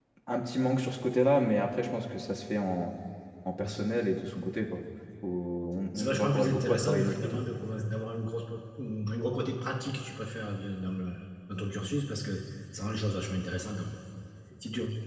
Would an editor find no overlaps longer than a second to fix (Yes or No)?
No